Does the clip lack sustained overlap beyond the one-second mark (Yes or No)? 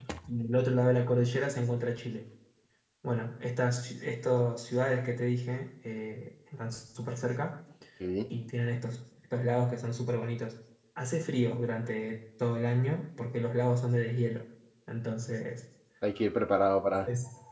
Yes